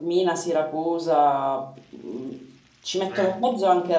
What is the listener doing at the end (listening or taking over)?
listening